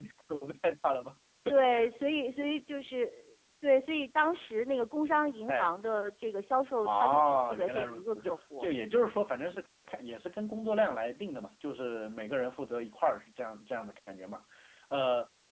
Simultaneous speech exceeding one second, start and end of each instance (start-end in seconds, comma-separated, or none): 6.8-8.7